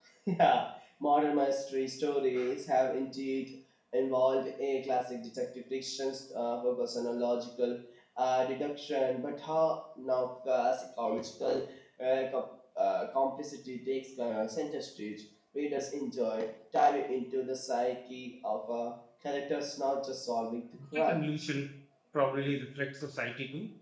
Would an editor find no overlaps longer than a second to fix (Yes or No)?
Yes